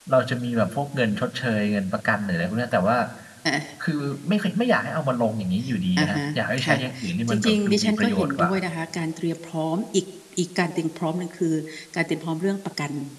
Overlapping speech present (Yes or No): Yes